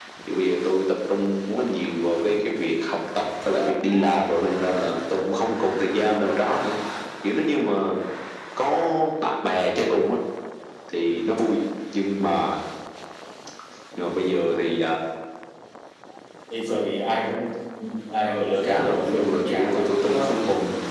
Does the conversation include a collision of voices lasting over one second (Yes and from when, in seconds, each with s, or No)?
Yes, from 18.3 s